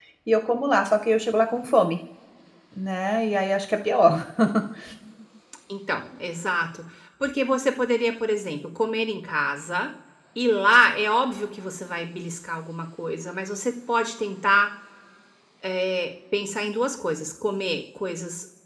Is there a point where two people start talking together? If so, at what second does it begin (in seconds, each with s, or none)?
none